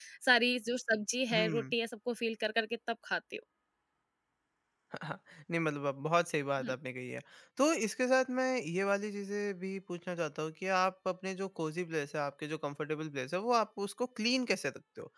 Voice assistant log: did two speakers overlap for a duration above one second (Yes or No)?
No